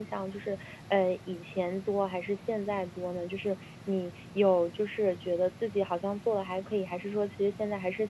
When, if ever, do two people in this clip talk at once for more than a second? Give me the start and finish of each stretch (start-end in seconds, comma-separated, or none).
none